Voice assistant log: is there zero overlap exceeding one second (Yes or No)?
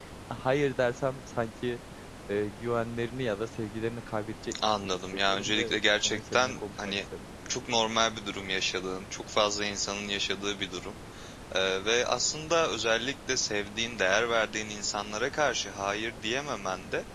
No